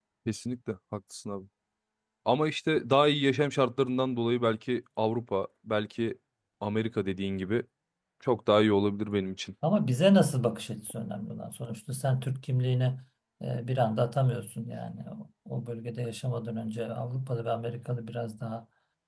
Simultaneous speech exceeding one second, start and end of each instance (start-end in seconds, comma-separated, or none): none